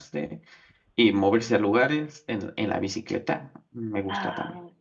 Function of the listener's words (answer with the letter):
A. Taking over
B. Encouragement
A